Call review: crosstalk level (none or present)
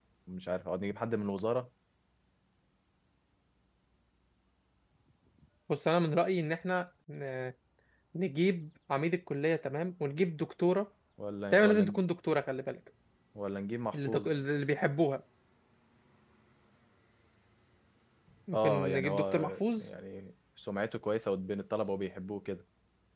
present